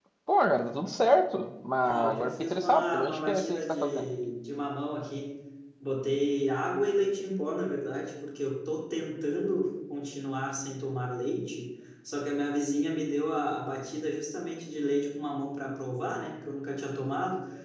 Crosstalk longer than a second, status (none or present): present